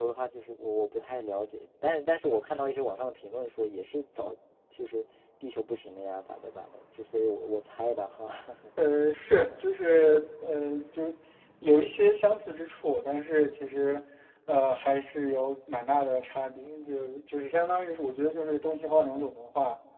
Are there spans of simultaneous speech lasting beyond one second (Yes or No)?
No